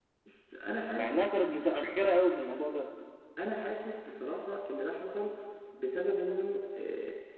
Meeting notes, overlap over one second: none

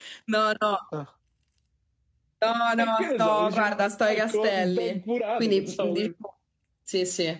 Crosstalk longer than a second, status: present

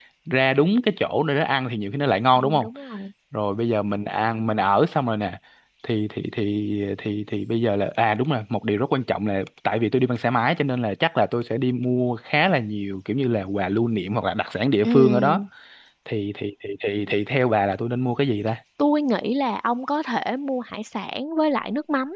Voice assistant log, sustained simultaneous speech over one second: none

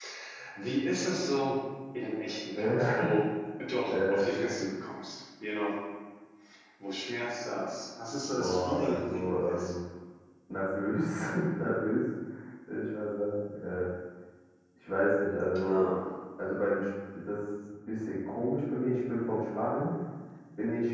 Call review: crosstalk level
present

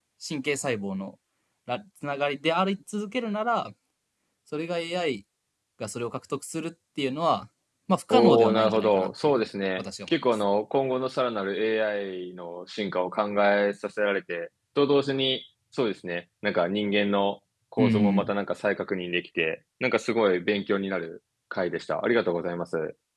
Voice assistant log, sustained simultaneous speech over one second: present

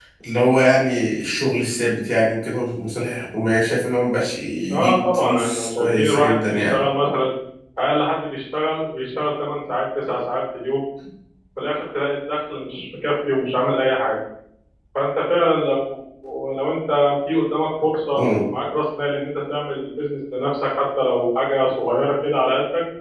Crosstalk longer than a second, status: present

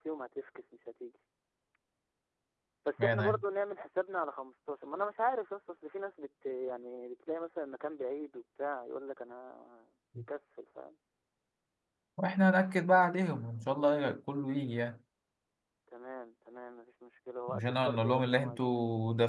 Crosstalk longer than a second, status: present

